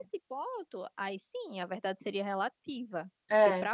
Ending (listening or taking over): listening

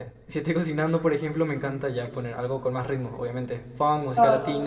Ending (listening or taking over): taking over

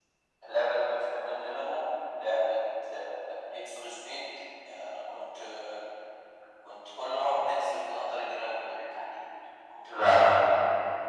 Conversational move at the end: listening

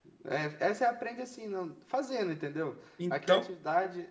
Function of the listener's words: listening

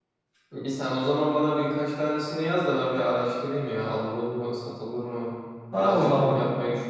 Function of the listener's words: taking over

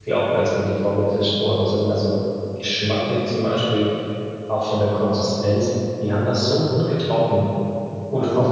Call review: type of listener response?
listening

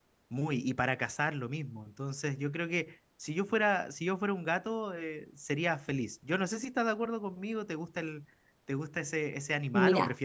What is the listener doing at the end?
taking over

